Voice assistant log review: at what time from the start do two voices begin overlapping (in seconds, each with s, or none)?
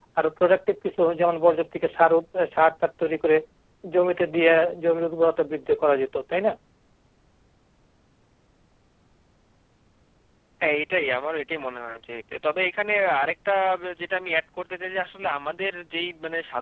none